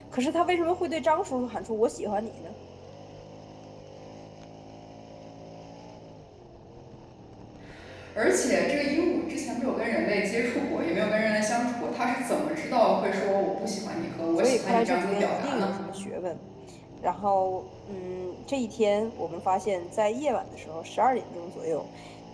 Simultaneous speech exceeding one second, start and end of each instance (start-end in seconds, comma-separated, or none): 14.4-15.7